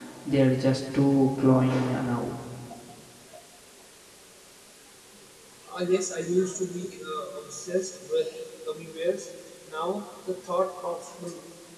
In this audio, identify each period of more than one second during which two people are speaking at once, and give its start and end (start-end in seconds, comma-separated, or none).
none